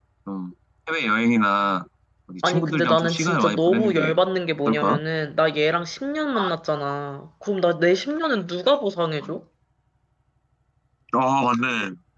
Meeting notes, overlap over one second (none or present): present